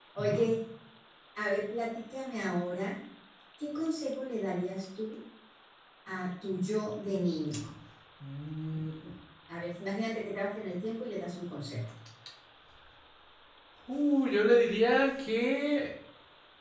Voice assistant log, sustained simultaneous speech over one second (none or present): none